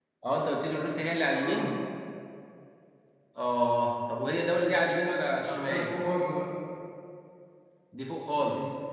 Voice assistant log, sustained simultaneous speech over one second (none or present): none